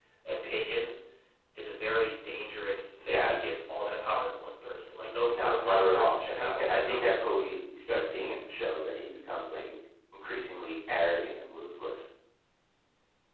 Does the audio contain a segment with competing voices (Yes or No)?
Yes